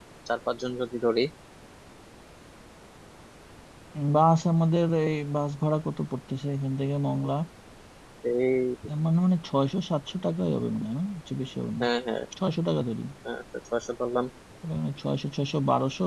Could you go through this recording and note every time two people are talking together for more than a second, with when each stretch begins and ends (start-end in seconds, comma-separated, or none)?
none